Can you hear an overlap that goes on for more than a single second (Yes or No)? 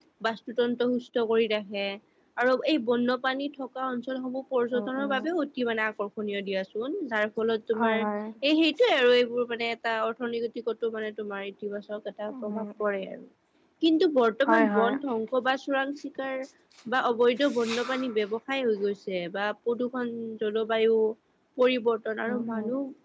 No